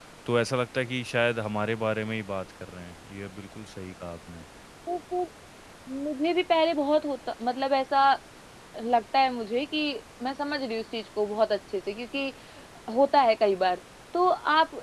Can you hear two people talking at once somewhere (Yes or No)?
No